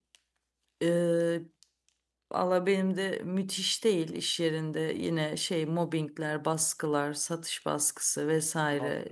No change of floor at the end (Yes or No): Yes